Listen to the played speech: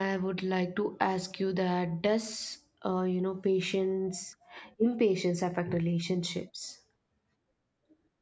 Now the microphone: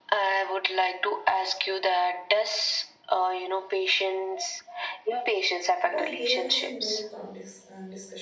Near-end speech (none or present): present